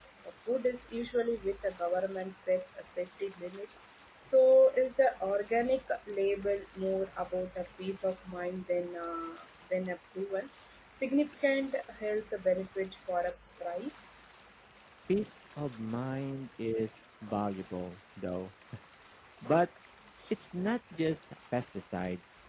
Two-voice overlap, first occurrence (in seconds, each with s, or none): none